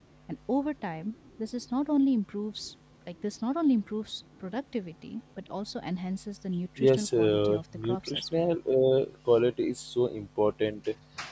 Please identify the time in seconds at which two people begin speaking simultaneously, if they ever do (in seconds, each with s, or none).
6.8 s